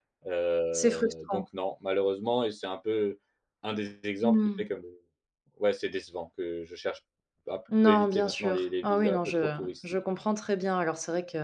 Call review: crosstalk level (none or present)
present